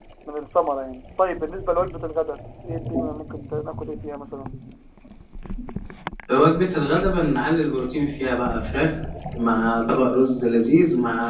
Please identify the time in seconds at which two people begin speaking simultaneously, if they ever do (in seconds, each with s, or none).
none